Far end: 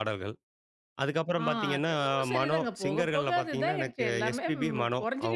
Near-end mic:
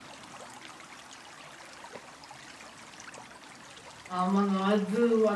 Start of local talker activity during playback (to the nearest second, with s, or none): 4 s